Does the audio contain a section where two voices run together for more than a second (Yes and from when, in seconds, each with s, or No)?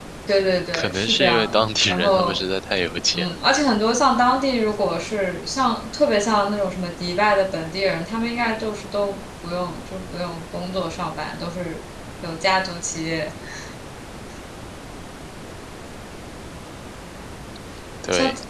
Yes, from 0.7 s